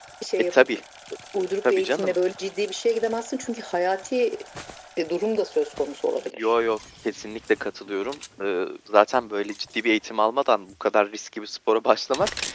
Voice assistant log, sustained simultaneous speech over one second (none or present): none